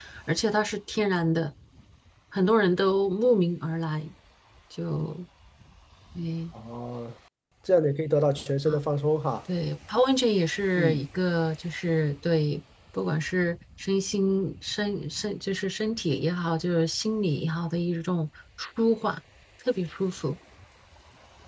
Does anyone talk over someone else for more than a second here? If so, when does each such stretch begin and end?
none

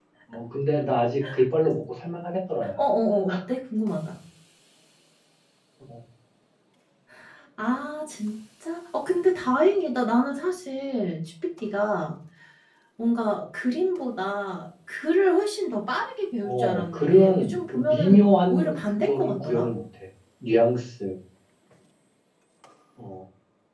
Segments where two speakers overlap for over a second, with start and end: 16.4-19.7

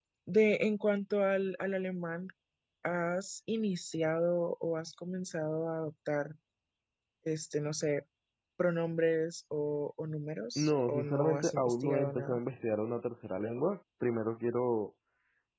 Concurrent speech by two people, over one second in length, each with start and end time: 10.6-12.4

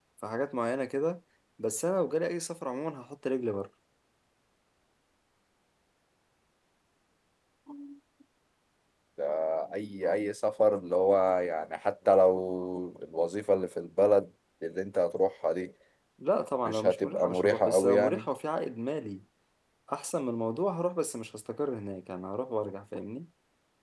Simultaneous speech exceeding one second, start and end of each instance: 16.6-18.3

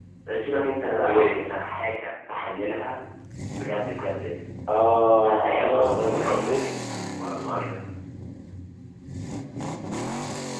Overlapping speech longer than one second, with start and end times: 5.2-6.5

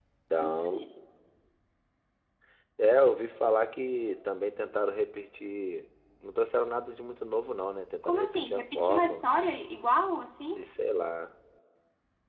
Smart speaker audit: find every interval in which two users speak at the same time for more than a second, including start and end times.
8.0-9.2

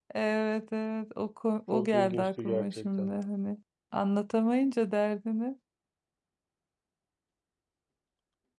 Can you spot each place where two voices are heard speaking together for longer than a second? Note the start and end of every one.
1.7-3.1

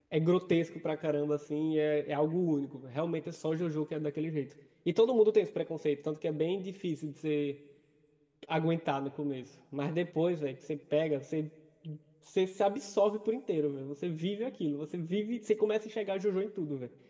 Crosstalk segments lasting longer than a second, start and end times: none

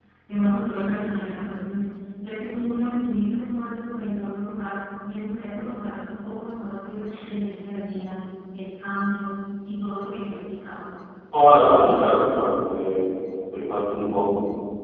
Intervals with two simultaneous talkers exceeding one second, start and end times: none

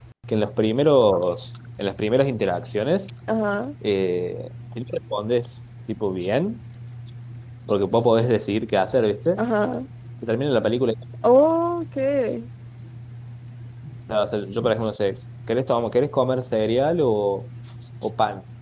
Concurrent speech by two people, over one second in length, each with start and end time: none

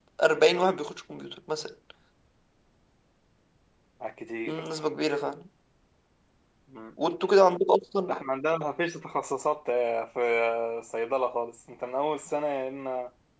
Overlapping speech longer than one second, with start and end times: none

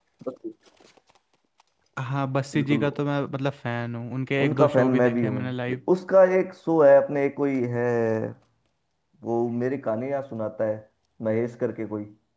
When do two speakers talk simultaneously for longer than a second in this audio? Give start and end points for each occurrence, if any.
4.4-5.8

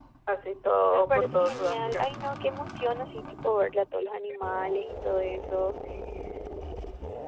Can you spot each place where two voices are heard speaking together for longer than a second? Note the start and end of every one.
0.7-2.0

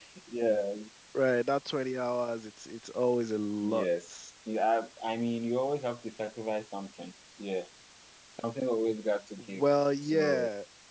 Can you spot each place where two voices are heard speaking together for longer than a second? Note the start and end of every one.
none

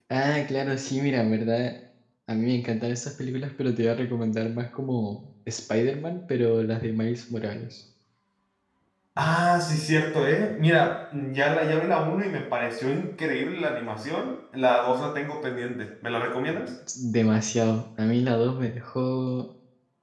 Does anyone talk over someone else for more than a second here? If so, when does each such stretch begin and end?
none

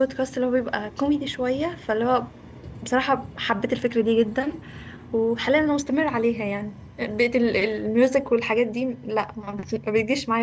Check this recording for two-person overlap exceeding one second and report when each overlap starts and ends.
none

